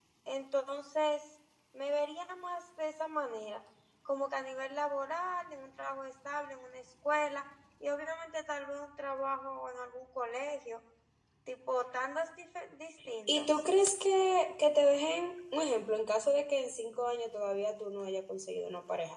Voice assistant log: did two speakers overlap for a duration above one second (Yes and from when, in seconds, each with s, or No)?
No